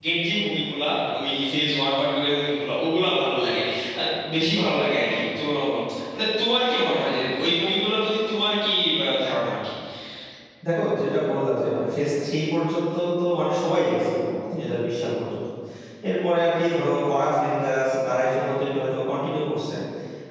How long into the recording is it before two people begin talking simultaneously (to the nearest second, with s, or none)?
none